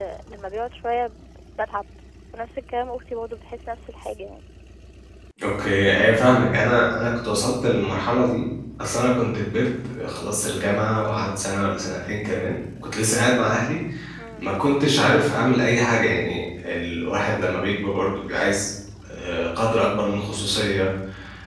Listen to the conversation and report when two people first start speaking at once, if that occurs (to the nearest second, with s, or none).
none